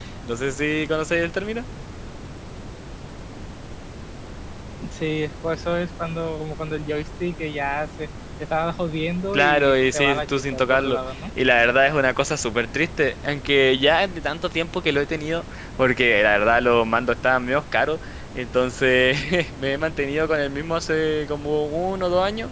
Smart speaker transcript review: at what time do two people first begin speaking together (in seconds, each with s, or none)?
9.3 s